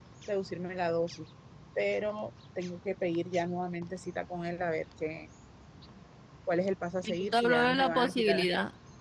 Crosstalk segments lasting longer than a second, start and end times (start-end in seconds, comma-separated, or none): 7.0-8.5